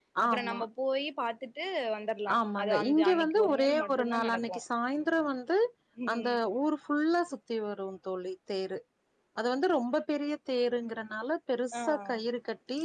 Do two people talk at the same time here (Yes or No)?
Yes